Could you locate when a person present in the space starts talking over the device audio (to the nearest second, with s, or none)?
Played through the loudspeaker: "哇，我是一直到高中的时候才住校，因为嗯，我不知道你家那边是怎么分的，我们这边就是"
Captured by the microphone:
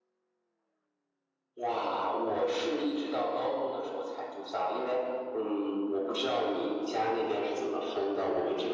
none